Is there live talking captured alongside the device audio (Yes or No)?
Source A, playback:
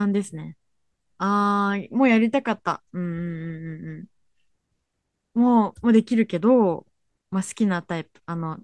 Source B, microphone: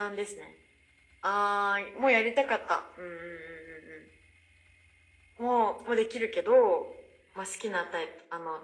No